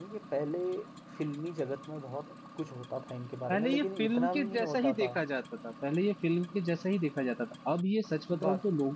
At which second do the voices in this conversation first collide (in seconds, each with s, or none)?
3.5 s